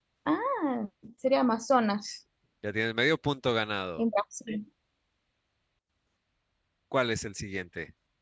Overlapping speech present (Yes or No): No